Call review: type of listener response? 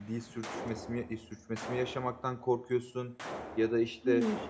listening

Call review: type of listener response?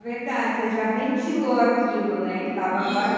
taking over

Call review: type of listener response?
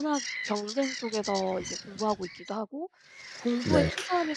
listening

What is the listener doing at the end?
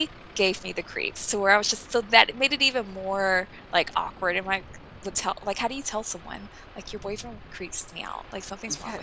taking over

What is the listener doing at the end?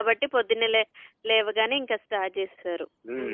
taking over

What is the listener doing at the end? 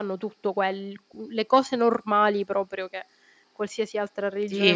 taking over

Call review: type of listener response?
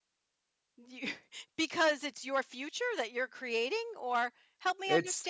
taking over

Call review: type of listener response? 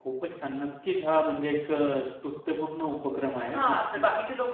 taking over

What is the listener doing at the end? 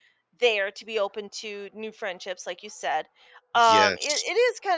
listening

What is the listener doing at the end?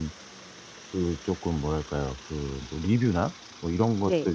listening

